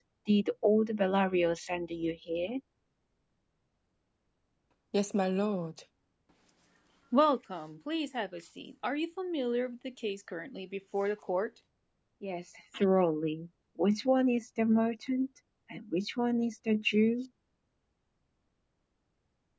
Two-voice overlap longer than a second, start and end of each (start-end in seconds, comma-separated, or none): none